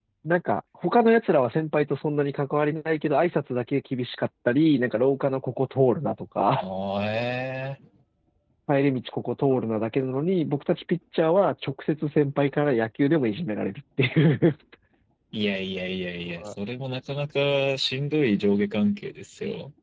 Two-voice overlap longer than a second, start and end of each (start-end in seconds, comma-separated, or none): none